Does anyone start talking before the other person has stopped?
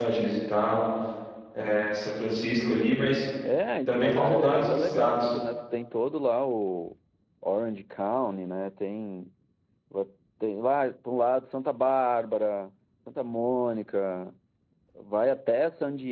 Yes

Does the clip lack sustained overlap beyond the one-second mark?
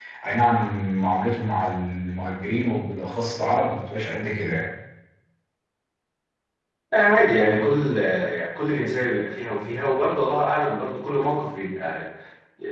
Yes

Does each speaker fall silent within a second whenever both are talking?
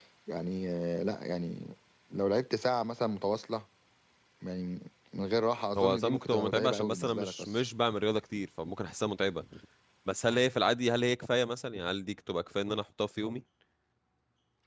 No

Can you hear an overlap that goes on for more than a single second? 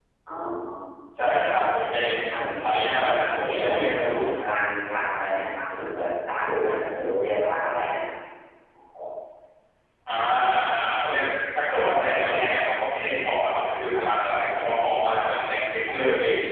Yes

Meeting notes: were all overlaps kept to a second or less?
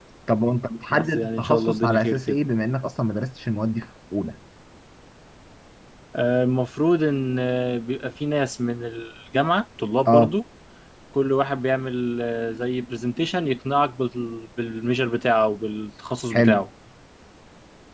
No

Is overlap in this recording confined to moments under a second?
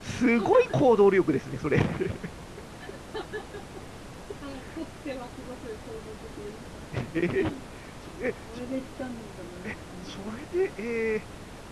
Yes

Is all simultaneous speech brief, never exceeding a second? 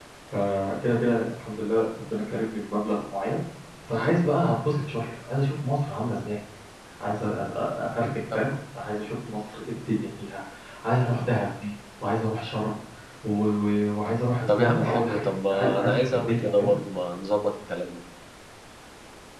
No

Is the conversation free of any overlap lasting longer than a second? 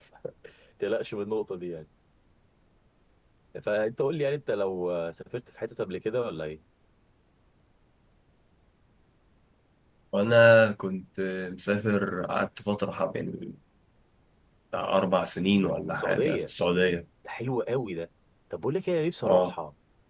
Yes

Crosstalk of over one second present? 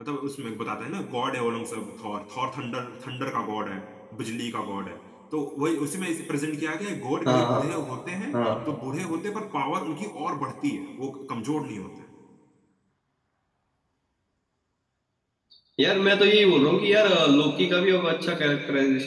No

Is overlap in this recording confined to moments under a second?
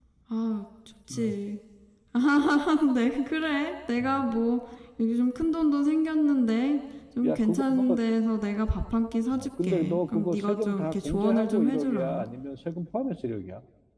No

